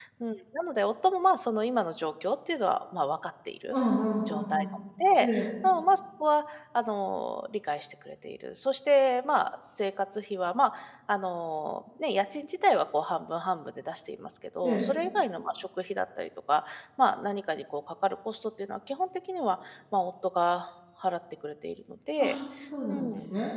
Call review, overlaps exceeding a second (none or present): none